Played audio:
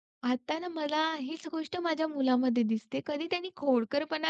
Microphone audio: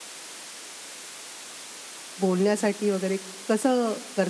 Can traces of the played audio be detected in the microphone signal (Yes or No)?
No